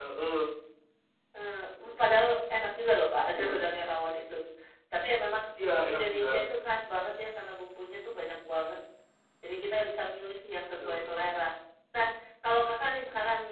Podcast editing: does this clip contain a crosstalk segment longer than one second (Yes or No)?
No